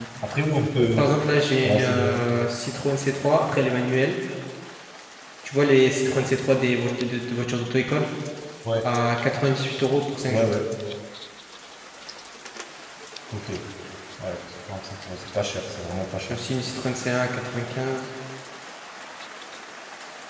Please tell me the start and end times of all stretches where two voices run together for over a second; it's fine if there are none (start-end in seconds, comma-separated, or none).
none